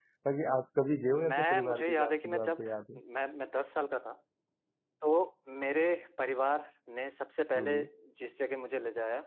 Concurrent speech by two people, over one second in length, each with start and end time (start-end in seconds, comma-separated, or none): 1.1-2.6